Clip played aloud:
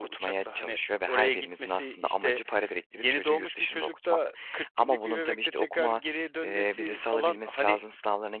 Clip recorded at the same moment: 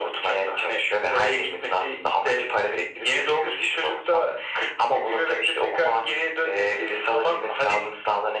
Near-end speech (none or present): none